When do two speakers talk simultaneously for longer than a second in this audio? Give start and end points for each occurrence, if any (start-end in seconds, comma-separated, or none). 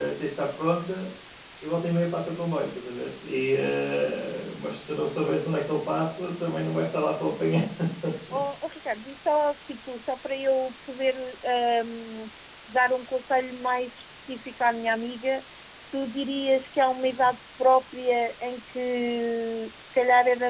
none